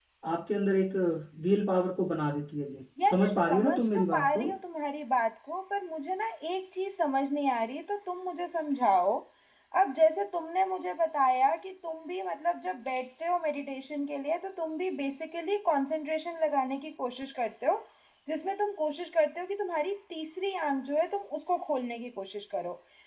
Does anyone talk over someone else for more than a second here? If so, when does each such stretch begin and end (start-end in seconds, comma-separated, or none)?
3.0-4.5